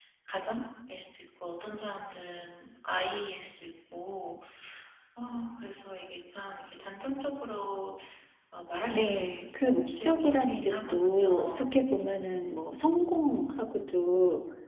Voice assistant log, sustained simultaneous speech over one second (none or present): present